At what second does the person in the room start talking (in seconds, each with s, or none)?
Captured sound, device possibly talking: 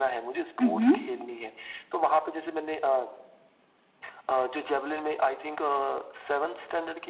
0.6 s